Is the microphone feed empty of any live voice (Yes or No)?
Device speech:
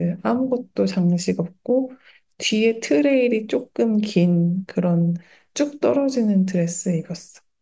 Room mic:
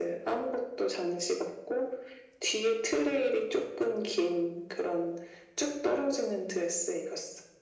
Yes